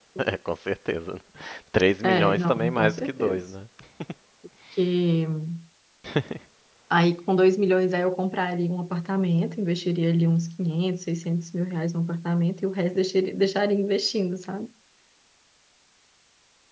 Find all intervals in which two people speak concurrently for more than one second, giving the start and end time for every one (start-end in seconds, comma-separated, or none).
2.0-3.4